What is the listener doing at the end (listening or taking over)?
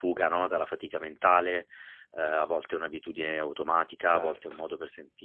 listening